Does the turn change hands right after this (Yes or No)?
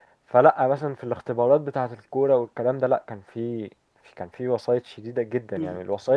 Yes